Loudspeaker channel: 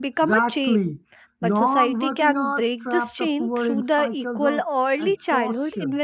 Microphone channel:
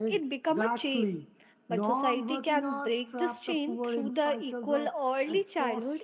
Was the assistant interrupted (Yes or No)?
No